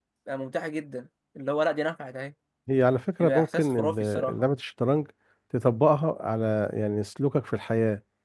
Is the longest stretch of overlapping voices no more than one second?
No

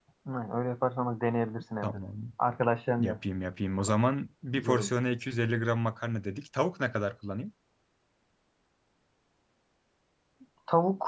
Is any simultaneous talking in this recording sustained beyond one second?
No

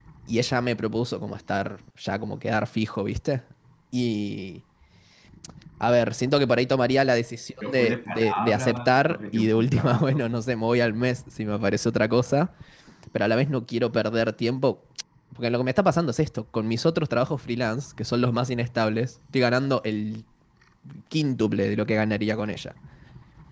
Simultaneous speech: Yes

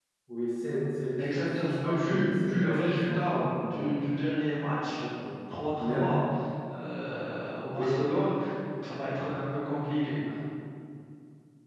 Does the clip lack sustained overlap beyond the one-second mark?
No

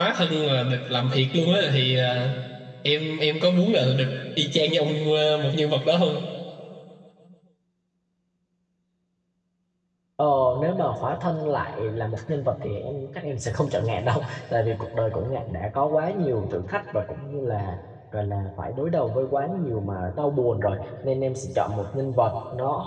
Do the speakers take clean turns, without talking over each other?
Yes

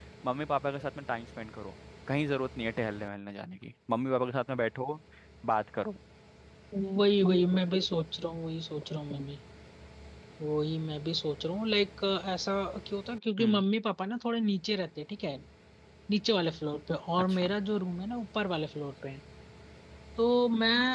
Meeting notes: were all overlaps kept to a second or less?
Yes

